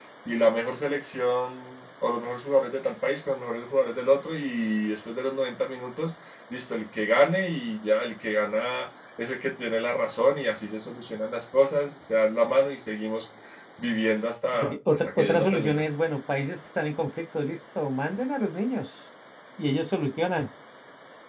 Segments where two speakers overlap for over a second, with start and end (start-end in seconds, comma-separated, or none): 14.6-15.8